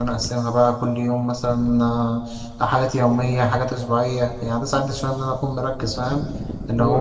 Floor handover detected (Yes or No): No